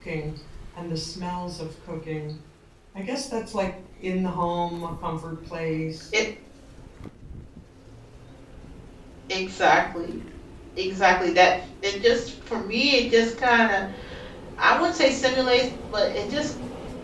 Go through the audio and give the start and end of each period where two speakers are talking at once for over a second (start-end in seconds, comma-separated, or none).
none